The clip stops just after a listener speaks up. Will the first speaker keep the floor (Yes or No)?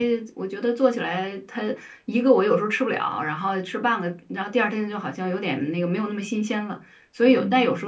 Yes